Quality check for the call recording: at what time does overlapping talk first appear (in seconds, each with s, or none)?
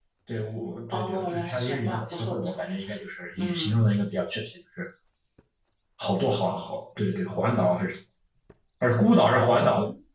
0.9 s